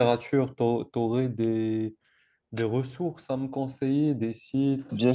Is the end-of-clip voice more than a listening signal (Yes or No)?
Yes